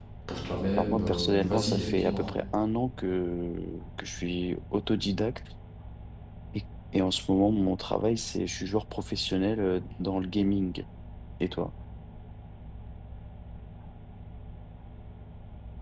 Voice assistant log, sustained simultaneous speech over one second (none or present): present